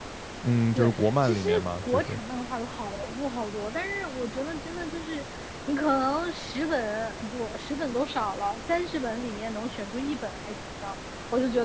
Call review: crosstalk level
present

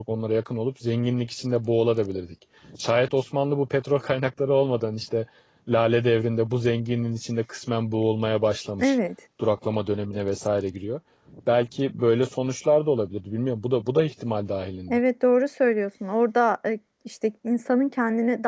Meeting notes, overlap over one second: none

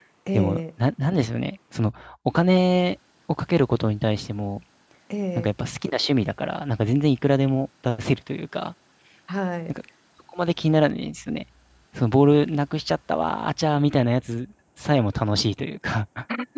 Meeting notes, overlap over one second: none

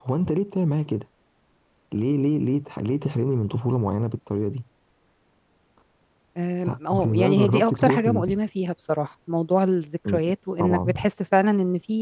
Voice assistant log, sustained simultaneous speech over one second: present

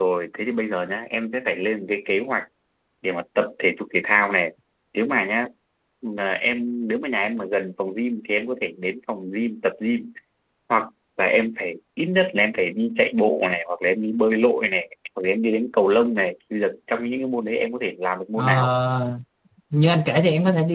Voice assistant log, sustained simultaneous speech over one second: none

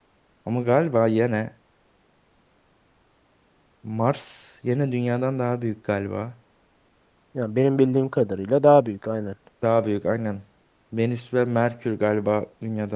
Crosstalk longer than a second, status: none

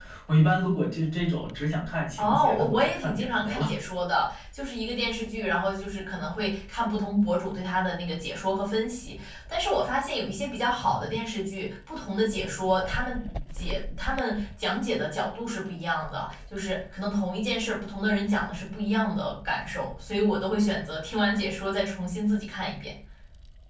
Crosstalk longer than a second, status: present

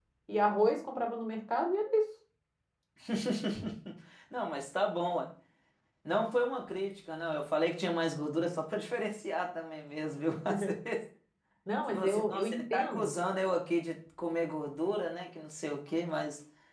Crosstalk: present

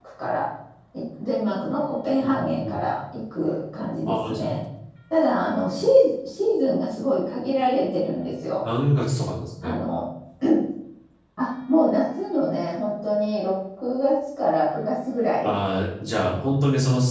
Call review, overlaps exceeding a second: none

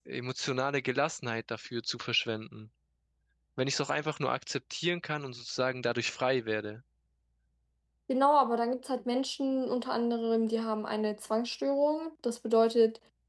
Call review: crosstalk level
none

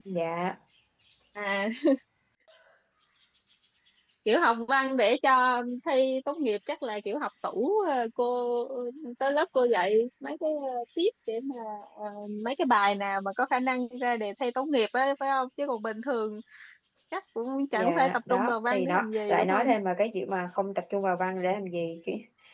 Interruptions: present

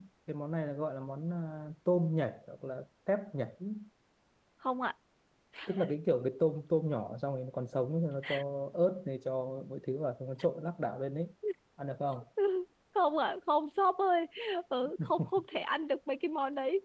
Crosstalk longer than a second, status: none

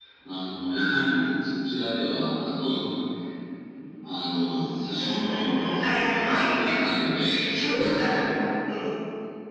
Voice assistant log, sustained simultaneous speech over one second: present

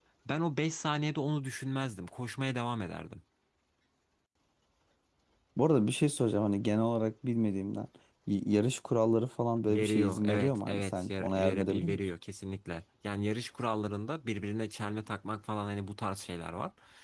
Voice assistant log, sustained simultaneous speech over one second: present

